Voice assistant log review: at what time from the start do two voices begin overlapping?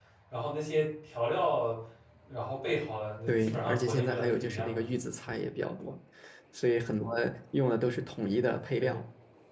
3.3 s

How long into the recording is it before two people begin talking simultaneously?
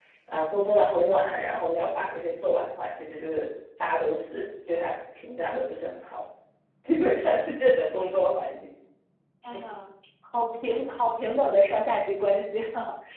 none

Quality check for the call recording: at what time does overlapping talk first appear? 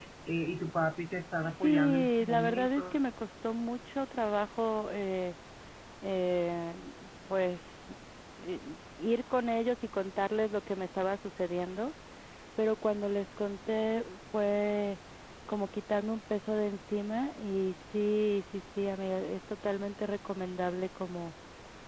1.4 s

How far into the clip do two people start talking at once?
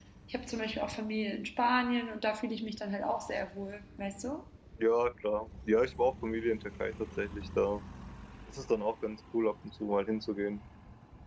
none

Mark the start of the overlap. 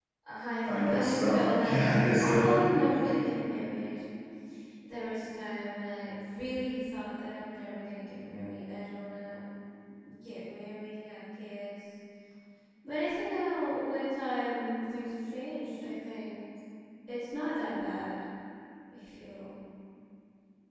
0.9 s

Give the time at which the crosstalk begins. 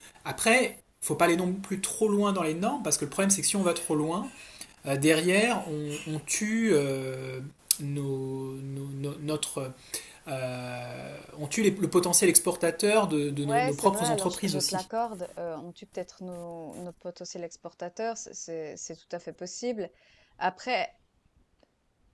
13.5 s

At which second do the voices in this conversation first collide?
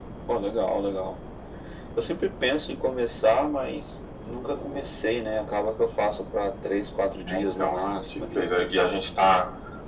7.2 s

